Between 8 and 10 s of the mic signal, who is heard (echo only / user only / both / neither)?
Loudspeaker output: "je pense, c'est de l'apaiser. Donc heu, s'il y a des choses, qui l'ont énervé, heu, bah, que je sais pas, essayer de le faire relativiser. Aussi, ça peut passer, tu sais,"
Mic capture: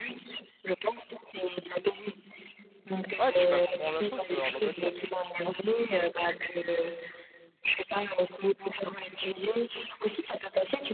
echo only